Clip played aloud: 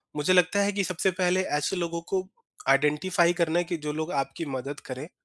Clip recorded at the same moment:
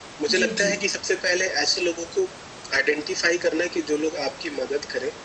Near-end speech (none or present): present